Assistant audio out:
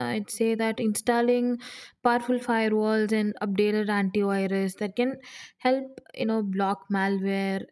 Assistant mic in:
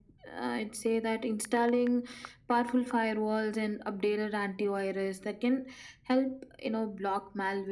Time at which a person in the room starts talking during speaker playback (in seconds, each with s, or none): none